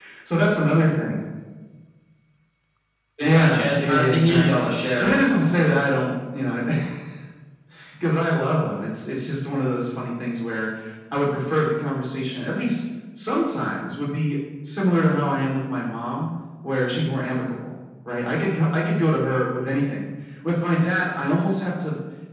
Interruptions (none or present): present